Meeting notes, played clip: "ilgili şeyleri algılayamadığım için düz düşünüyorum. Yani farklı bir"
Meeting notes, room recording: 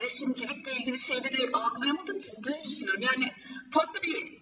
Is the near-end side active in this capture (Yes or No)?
No